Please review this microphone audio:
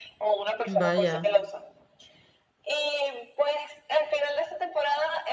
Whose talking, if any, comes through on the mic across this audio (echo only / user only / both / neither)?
both